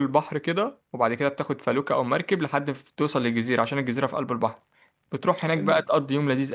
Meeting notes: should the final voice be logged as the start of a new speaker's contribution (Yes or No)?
No